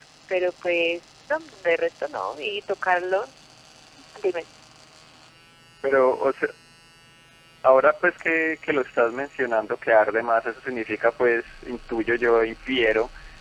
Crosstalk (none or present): none